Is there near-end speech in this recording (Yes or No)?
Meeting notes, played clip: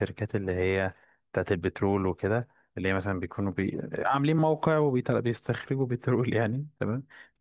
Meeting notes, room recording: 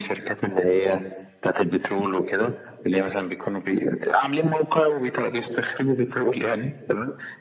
No